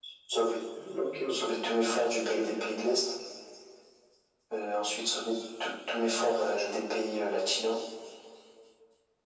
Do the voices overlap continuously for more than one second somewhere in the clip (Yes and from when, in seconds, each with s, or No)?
Yes, from 1.3 s